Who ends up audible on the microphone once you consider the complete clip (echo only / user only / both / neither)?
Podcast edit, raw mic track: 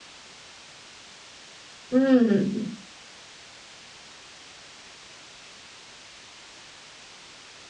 user only